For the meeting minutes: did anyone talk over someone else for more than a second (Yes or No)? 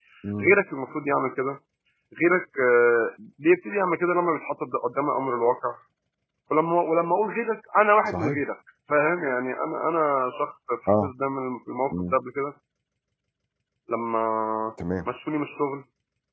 No